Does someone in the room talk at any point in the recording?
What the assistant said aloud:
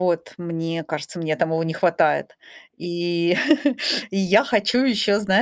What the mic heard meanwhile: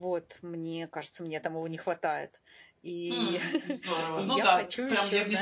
Yes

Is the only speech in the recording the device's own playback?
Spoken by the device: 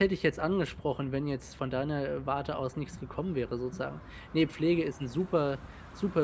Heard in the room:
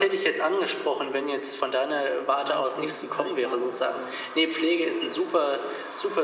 No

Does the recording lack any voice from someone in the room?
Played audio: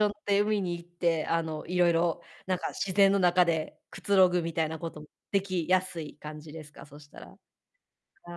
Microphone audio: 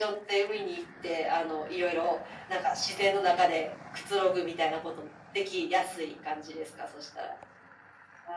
Yes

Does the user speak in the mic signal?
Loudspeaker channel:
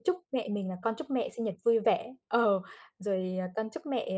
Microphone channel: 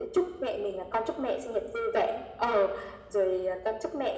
No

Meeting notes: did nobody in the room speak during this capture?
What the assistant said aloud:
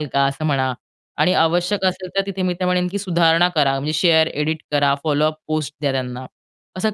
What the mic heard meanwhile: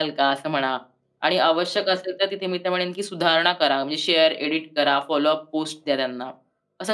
Yes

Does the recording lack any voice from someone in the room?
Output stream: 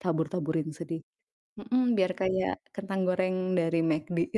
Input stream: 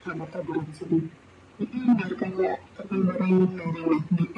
Yes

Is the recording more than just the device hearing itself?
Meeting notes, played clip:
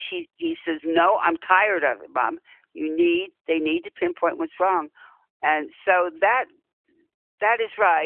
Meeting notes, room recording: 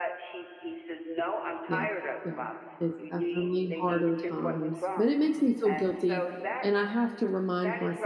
Yes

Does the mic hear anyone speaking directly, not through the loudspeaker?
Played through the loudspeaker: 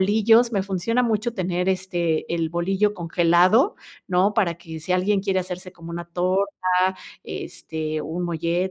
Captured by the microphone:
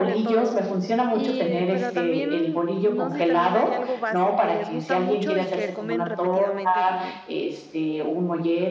Yes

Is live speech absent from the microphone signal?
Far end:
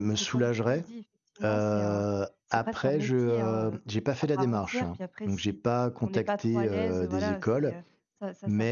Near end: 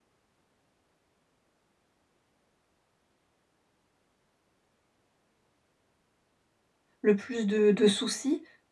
No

